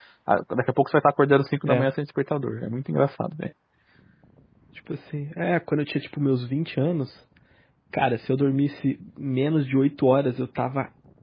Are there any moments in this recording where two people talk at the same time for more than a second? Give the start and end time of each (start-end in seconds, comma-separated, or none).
none